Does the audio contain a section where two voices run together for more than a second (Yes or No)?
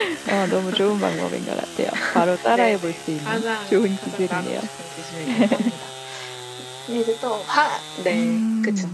Yes